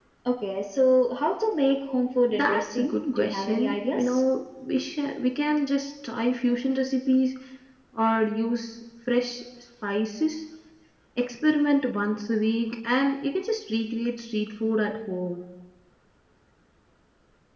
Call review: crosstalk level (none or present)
present